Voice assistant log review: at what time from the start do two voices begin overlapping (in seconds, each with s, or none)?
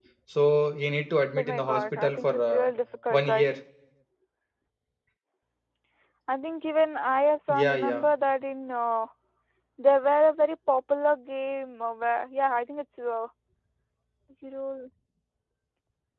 1.4 s